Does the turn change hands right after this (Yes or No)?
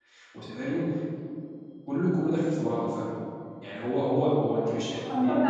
Yes